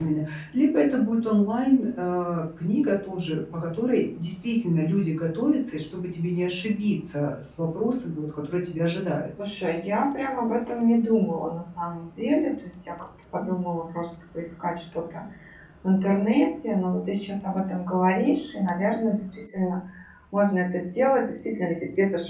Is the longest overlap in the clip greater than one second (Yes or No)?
No